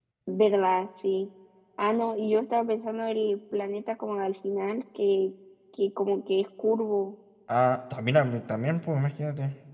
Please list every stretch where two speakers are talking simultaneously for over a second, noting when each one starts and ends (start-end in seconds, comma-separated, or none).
none